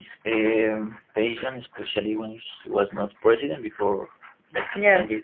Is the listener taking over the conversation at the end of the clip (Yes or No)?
Yes